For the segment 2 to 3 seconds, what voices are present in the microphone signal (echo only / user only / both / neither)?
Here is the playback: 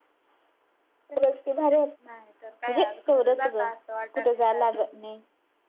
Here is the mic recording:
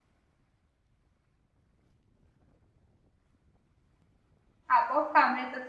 neither